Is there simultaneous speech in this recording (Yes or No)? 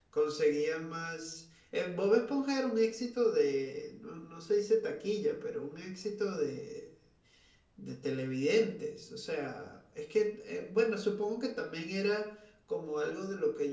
No